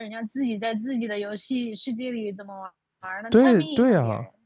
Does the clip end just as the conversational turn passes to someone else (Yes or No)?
Yes